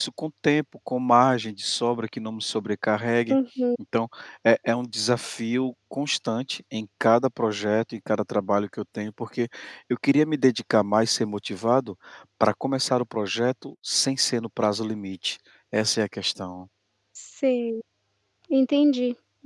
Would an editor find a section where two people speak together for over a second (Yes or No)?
No